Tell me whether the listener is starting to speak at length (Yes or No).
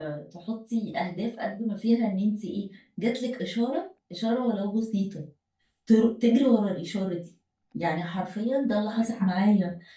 No